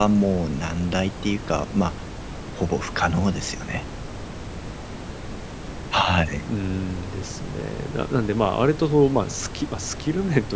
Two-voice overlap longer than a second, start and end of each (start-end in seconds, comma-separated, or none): none